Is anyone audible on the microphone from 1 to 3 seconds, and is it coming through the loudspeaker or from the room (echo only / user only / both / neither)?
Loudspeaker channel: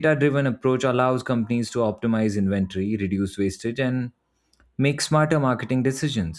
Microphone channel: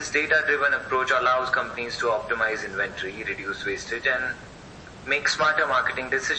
echo only